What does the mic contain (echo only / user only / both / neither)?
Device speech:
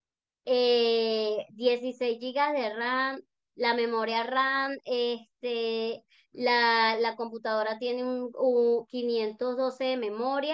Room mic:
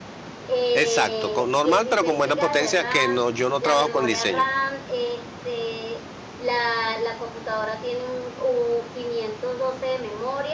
both